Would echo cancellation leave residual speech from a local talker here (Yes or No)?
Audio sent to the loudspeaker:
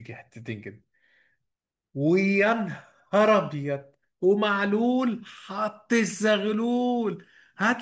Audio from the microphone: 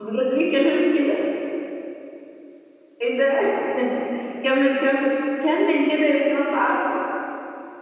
Yes